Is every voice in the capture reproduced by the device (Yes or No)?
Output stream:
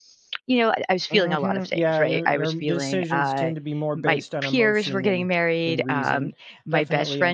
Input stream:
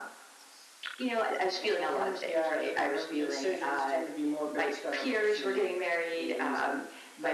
Yes